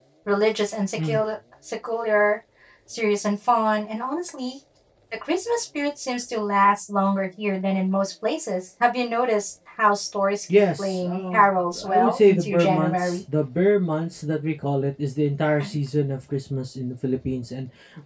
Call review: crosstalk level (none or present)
present